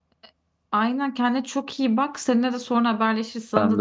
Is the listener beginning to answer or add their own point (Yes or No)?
No